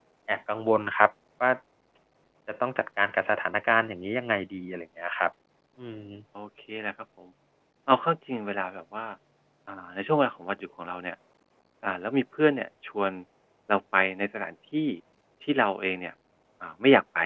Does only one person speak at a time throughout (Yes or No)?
Yes